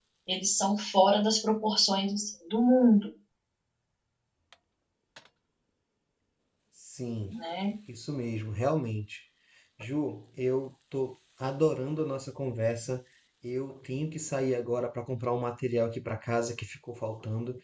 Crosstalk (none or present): none